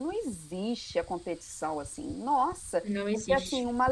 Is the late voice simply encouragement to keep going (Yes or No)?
Yes